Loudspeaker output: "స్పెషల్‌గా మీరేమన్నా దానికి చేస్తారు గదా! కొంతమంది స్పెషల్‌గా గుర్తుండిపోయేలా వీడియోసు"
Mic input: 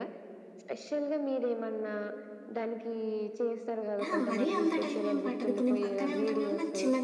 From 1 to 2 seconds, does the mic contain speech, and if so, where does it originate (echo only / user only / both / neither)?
echo only